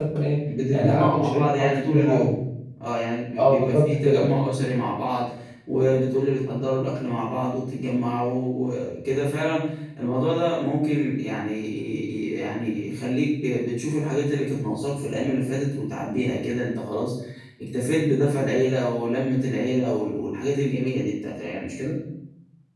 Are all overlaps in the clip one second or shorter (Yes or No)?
No